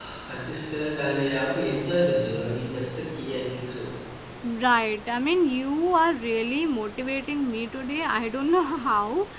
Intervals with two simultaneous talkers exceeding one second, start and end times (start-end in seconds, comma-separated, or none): none